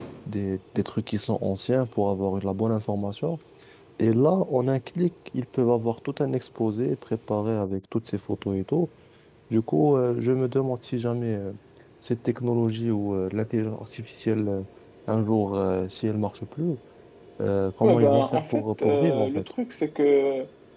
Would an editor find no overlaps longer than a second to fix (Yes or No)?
No